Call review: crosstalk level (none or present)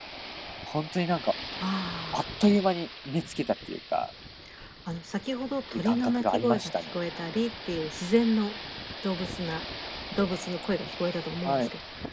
present